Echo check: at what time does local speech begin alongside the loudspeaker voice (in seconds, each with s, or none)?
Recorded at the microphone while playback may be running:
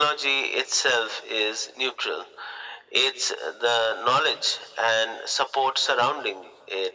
none